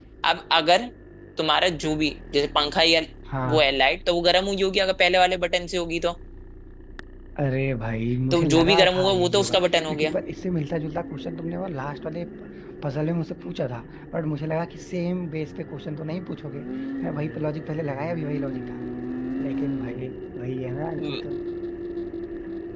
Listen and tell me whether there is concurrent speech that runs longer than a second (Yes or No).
Yes